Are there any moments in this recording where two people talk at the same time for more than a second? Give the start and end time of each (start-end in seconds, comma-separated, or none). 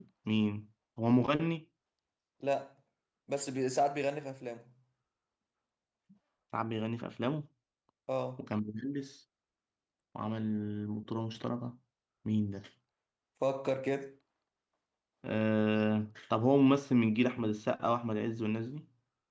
none